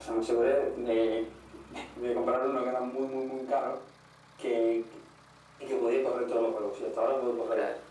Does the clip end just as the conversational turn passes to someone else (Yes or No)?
No